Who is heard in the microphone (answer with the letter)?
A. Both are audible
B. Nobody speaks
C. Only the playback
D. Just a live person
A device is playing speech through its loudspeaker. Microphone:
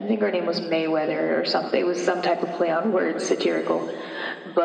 C